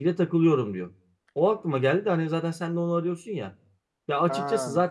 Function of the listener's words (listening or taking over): listening